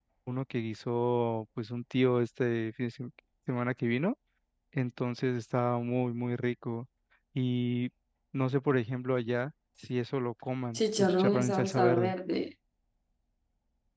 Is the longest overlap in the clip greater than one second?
Yes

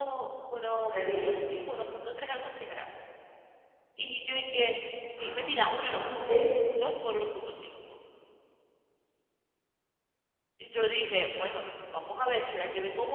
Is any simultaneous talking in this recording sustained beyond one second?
Yes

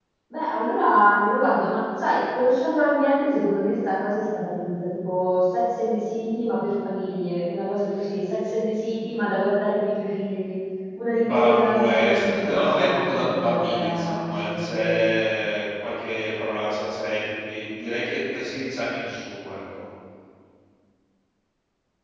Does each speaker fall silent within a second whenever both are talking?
No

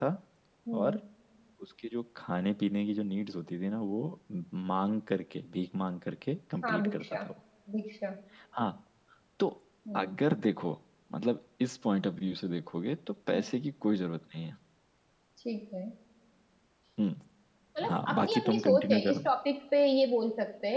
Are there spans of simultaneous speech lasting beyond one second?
Yes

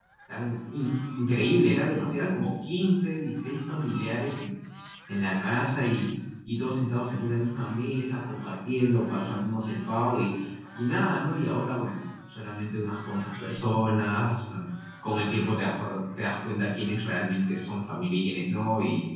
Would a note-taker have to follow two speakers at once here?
No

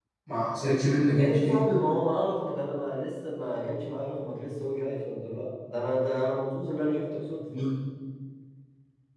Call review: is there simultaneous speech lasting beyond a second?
No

